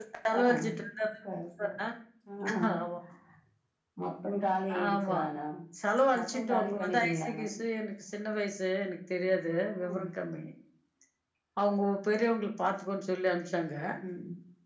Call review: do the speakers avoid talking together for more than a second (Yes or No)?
No